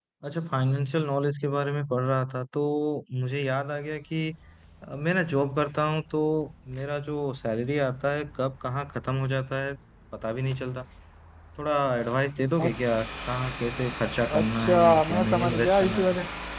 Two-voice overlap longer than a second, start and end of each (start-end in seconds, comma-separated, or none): 14.4-16.1